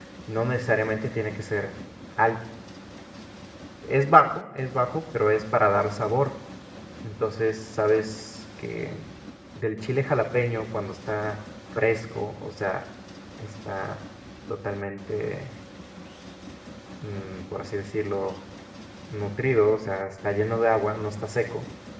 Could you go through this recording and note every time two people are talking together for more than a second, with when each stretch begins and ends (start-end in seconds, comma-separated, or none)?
none